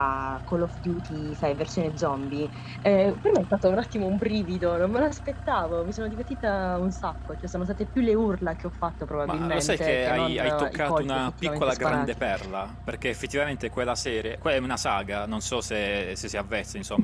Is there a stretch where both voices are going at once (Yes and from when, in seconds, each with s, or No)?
Yes, from 9.3 s